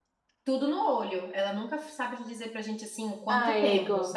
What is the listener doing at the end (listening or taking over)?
taking over